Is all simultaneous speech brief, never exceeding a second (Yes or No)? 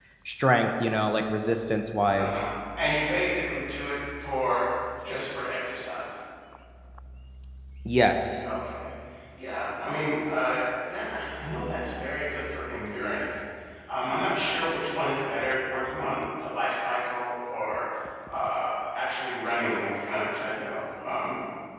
Yes